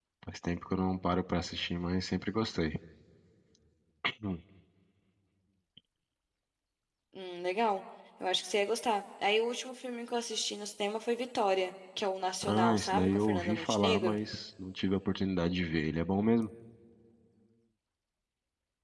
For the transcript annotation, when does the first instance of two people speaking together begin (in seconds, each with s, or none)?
12.4 s